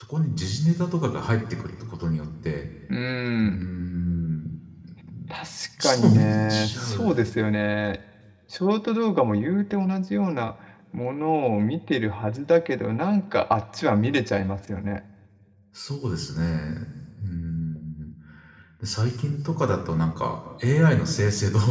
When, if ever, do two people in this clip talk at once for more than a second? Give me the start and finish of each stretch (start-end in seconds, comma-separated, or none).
5.8-7.3